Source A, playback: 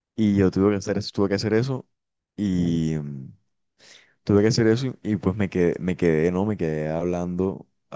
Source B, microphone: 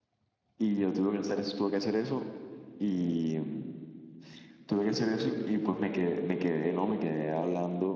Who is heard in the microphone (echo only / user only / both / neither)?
echo only